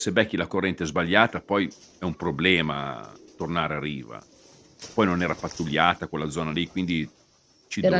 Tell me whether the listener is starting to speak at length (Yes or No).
No